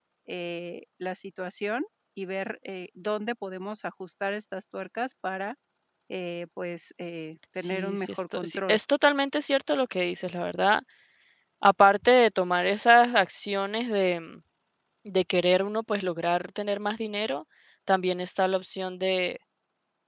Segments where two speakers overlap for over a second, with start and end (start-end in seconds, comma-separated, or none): 7.6-8.8